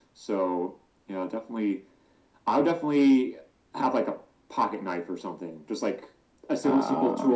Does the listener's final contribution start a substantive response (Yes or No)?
No